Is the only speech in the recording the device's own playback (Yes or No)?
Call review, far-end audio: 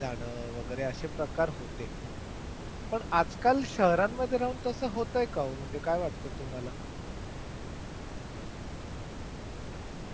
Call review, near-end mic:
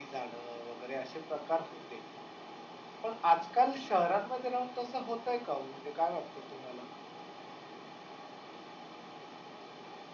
Yes